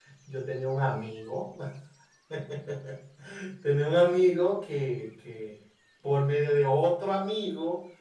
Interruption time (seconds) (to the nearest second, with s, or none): none